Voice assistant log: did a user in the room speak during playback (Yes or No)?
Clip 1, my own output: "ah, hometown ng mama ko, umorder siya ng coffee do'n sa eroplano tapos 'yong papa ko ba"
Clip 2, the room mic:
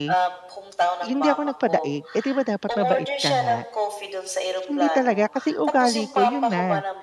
Yes